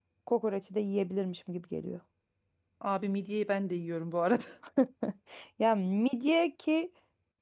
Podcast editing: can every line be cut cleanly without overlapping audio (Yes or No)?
Yes